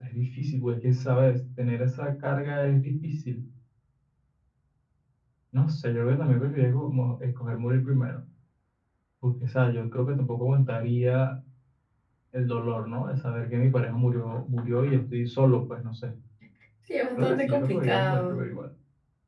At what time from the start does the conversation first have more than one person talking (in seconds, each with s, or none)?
17.2 s